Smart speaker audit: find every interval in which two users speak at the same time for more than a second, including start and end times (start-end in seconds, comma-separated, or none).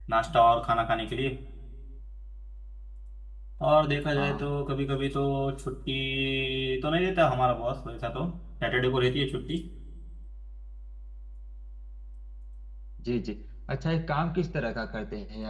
none